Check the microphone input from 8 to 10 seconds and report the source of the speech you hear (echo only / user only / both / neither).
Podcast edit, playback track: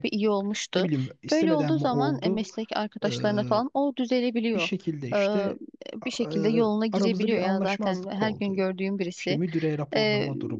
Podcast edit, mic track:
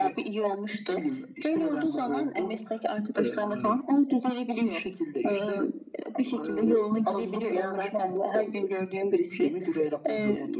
echo only